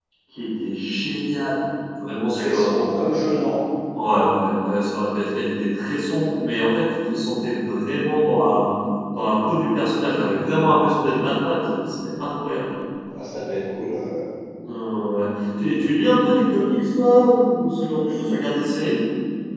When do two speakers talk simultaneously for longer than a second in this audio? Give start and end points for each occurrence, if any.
none

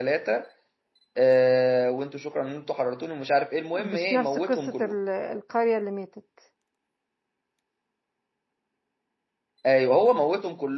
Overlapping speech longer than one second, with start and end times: 3.7-5.0

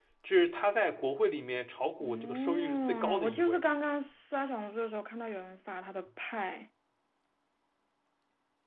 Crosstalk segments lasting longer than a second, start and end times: 2.0-3.6

